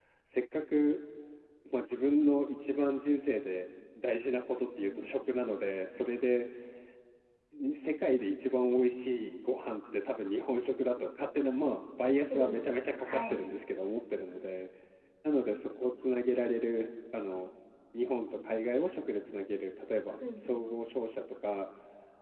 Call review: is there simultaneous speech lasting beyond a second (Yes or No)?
No